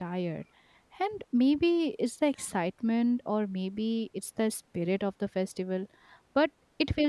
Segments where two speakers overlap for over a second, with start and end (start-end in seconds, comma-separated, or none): none